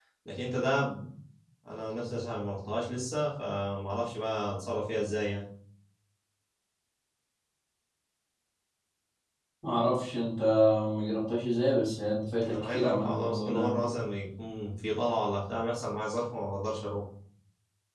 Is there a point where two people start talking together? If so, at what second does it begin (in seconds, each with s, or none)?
12.4 s